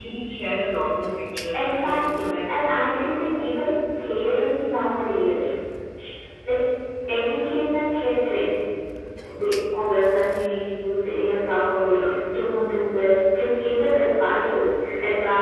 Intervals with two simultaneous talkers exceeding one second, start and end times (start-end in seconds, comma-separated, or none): 1.5-3.7